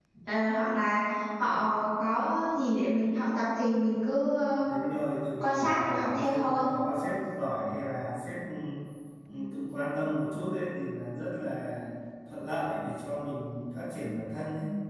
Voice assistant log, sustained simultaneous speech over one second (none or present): present